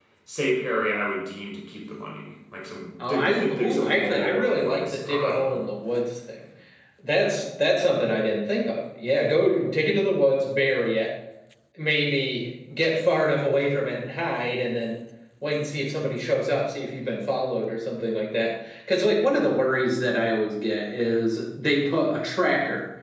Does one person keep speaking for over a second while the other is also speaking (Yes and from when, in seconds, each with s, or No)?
Yes, from 3.0 s